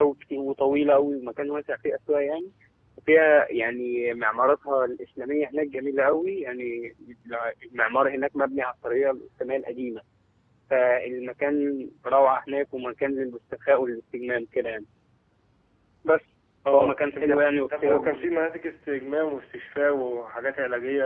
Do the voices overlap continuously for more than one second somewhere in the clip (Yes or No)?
Yes